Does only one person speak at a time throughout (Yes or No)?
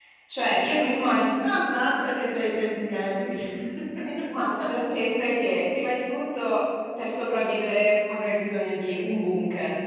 Yes